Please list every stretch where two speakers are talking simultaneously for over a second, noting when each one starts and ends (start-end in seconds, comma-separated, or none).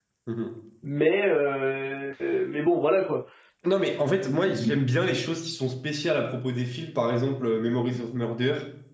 none